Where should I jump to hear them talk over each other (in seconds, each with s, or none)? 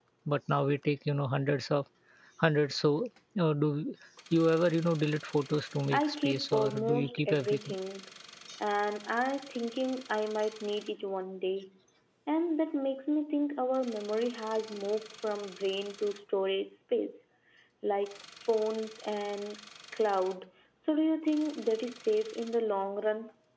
5.9 s